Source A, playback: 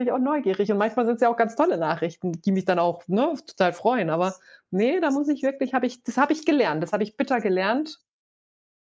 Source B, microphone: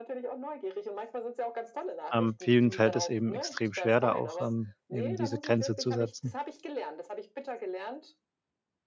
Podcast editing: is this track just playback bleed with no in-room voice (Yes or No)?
No